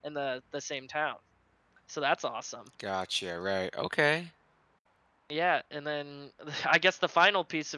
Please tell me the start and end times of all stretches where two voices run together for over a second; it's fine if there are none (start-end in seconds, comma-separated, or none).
none